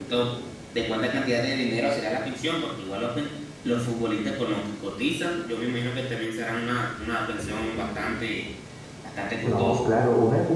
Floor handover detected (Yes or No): Yes